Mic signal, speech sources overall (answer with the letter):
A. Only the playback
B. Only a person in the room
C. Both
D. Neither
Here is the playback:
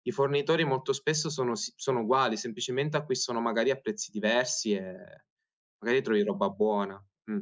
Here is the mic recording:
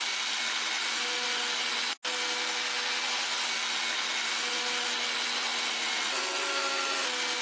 D